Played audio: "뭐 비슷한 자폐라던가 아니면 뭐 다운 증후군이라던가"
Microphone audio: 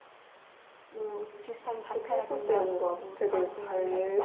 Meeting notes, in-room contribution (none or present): present